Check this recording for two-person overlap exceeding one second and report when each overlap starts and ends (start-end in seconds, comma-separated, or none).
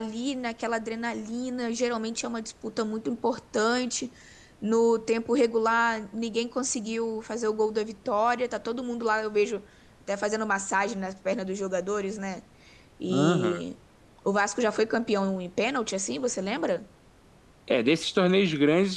none